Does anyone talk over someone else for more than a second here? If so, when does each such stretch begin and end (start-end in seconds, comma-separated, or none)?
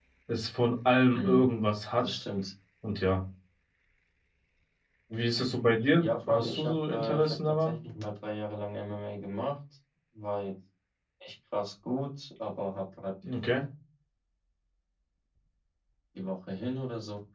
6.0-7.7